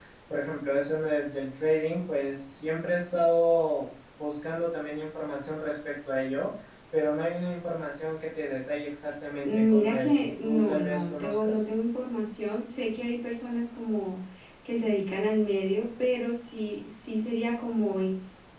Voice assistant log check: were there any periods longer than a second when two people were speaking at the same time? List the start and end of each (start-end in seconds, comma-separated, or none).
9.4-11.5